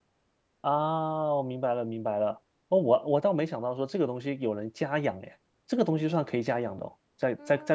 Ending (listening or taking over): taking over